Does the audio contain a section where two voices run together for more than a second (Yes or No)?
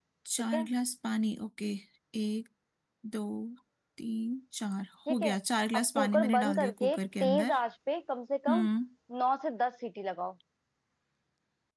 Yes